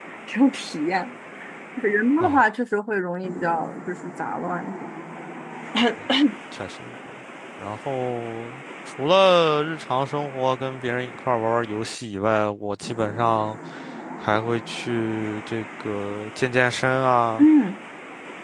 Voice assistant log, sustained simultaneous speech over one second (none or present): none